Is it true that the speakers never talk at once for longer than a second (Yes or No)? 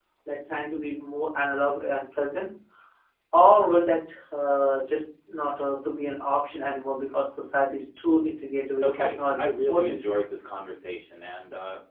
No